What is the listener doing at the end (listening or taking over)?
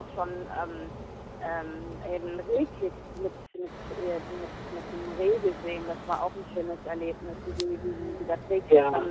listening